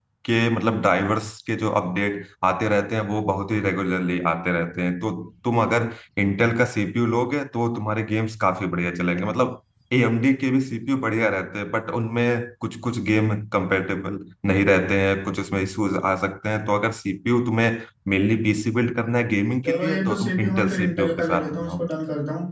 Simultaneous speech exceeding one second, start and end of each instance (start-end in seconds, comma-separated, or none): 19.6-21.8